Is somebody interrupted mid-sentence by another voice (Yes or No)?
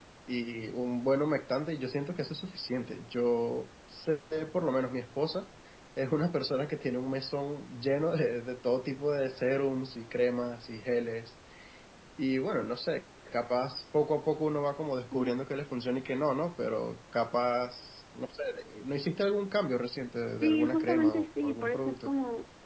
Yes